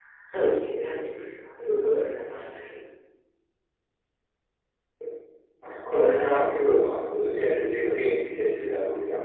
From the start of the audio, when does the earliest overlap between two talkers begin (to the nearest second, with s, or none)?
none